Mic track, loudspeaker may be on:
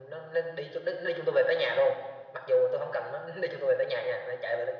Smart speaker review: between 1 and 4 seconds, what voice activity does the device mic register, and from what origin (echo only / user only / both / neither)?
echo only